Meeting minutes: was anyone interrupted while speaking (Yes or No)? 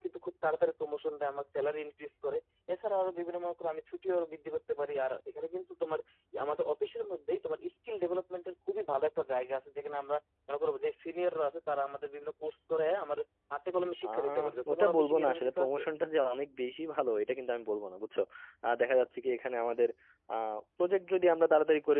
Yes